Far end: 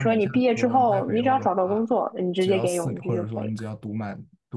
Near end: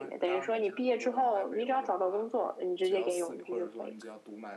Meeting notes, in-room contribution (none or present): none